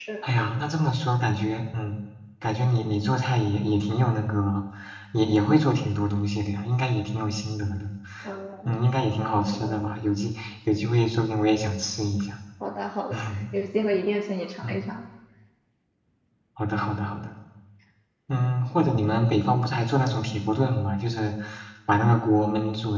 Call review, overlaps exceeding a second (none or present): none